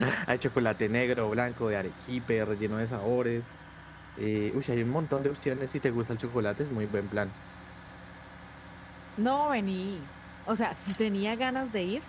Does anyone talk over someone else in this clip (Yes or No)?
No